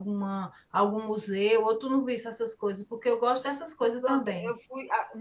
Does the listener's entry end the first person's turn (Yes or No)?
Yes